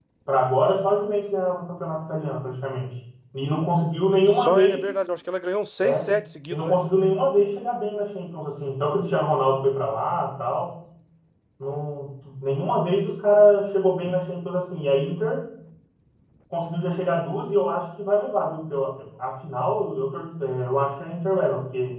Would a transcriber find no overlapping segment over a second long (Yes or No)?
Yes